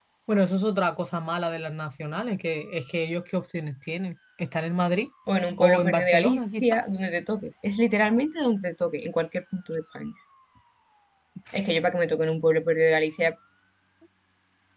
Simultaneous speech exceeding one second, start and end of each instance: 5.6-6.8

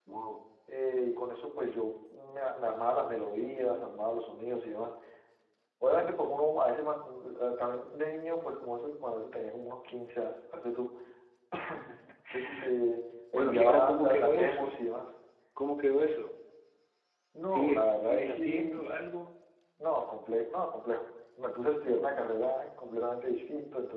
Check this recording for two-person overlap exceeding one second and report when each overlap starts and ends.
13.3-14.8, 17.5-18.8

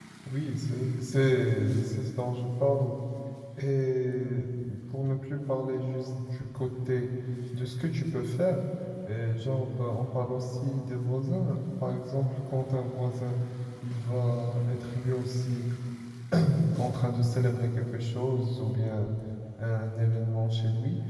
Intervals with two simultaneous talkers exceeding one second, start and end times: none

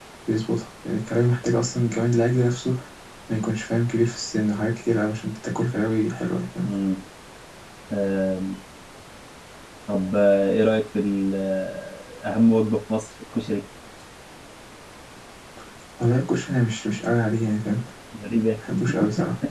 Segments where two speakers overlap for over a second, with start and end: none

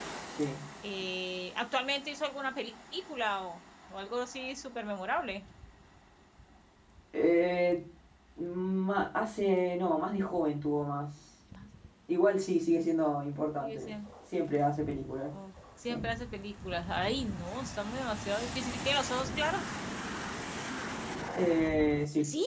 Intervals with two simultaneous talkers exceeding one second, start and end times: none

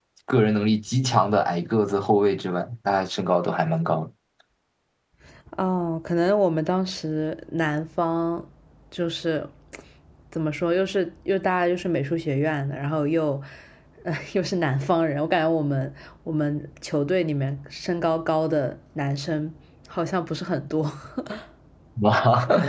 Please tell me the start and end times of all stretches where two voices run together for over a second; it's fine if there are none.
none

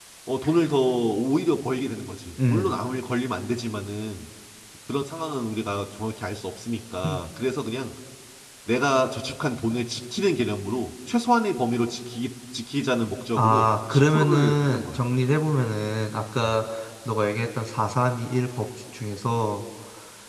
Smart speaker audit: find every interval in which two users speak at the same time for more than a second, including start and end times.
13.4-15.0

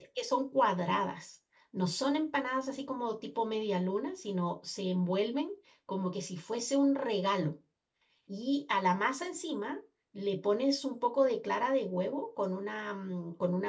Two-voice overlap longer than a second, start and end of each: none

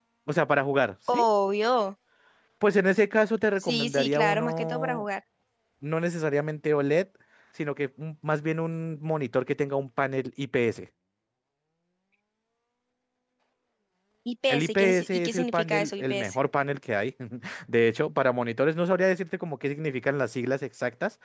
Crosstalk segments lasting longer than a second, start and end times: 3.6-5.0, 14.5-16.4

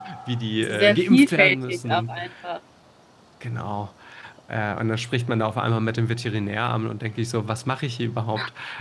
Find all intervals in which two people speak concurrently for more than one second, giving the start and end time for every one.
0.6-2.2

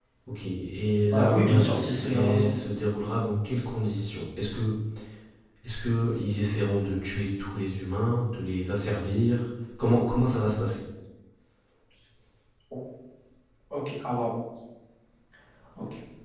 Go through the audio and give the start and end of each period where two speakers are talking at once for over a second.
1.1-2.5

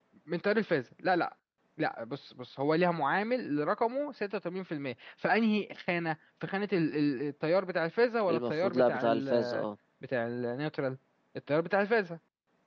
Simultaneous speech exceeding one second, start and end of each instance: 8.3-9.7

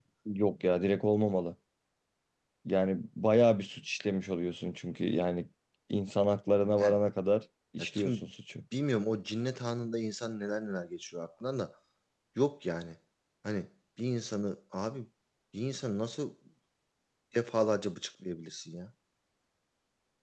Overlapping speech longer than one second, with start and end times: none

